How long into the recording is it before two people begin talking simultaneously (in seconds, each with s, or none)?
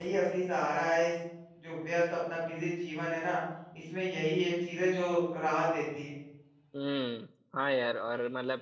none